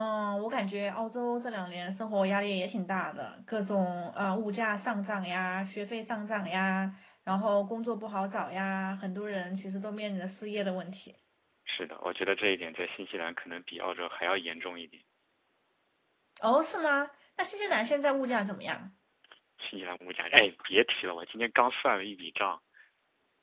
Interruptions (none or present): none